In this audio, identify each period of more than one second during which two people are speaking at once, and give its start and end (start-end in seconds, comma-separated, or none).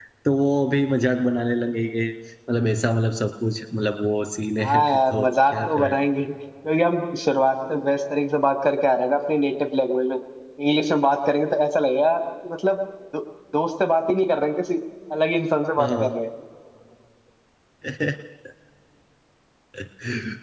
4.6-5.9